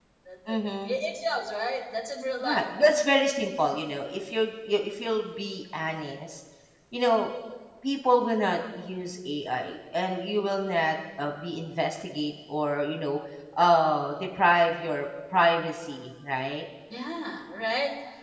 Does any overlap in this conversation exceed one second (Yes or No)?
No